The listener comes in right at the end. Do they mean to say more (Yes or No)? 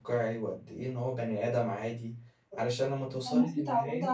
Yes